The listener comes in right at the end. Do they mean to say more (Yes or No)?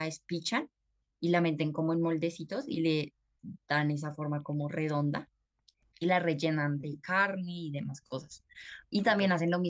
No